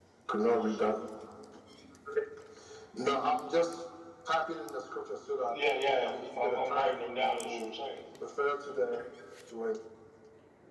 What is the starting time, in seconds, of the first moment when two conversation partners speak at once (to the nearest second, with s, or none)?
6 s